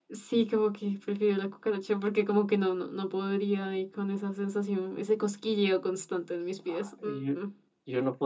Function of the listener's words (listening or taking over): taking over